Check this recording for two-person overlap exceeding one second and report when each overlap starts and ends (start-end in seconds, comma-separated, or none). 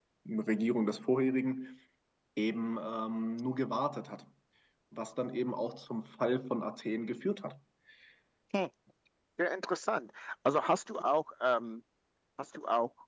none